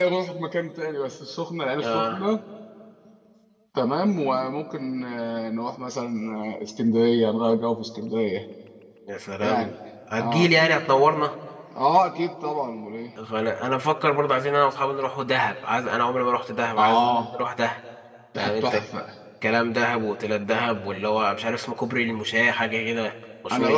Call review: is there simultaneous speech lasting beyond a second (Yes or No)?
No